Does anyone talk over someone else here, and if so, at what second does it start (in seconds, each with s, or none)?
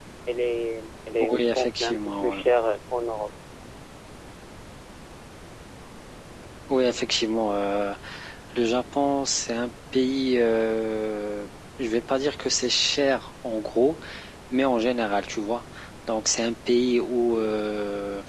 1.2 s